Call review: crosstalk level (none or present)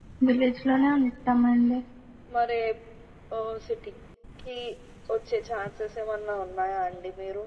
none